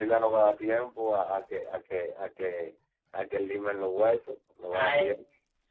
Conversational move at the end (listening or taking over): taking over